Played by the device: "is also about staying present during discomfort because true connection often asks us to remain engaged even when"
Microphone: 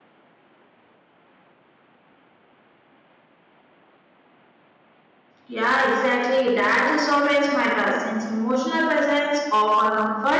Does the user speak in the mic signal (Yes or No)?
Yes